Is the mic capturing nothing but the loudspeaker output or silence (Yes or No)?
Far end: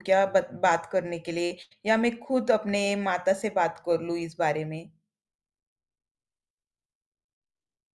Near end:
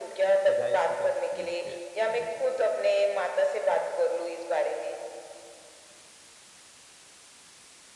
No